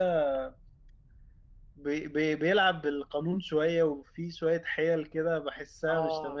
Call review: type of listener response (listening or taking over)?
taking over